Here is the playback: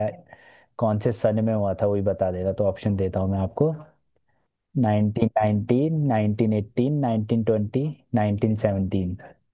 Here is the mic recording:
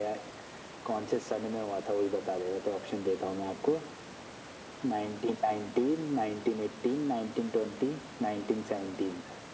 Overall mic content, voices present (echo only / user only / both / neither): echo only